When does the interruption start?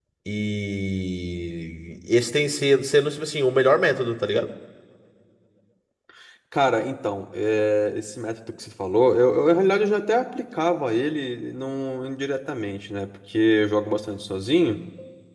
none

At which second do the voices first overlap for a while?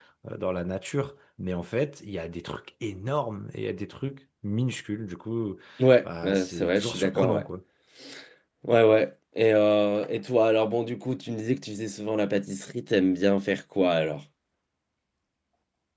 6.0 s

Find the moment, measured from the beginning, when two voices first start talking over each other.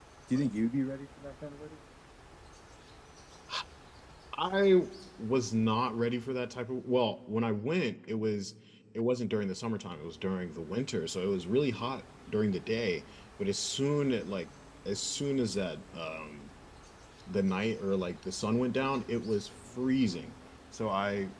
none

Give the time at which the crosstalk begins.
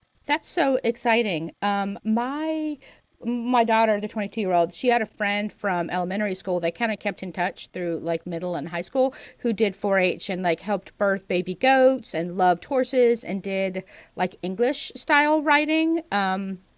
none

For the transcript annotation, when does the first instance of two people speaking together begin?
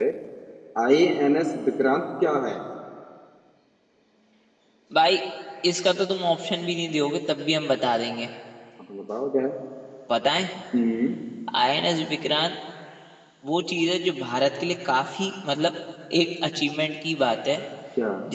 none

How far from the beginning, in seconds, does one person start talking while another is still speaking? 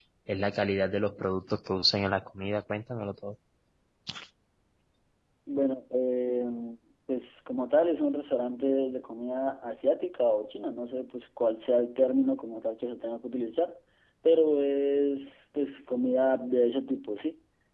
none

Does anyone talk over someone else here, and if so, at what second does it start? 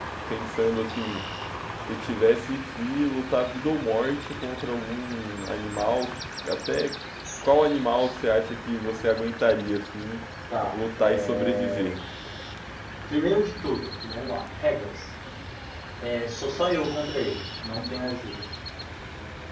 10.7 s

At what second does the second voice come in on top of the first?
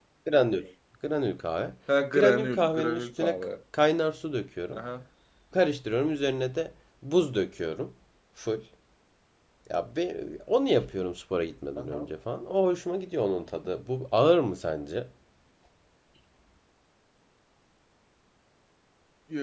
2.1 s

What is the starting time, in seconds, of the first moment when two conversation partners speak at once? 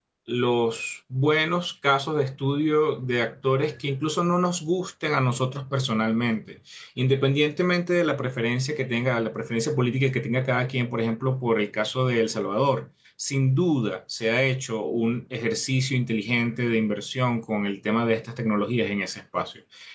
none

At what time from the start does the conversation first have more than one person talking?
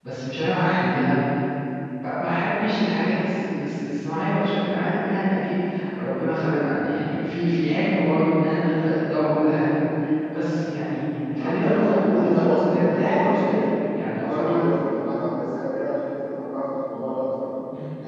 11.2 s

